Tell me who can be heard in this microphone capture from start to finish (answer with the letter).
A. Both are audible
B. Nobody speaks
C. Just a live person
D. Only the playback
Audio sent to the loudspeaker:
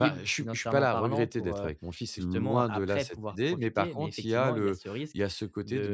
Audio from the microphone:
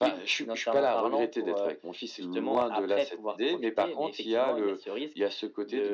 D